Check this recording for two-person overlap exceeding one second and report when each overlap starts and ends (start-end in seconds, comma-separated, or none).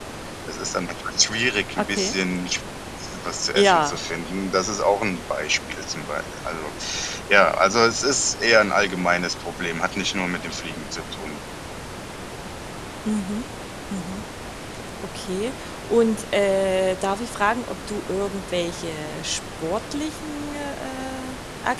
none